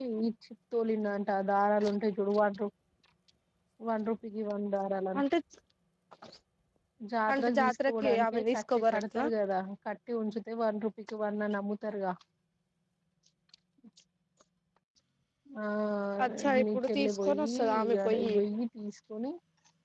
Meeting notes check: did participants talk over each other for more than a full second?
Yes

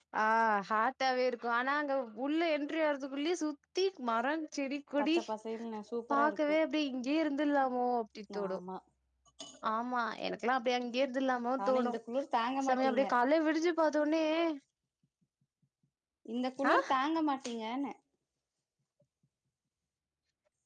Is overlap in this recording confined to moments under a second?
Yes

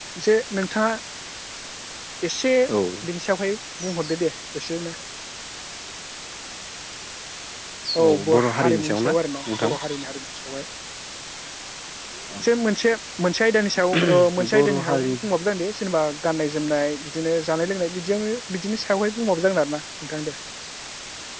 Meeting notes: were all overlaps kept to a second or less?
No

